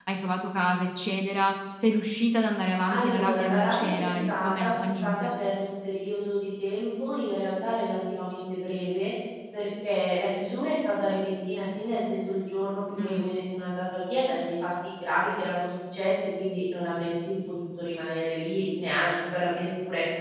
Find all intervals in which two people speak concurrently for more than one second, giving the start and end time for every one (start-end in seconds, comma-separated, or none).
2.9-5.3